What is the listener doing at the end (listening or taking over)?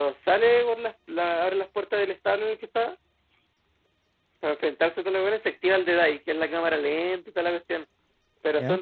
listening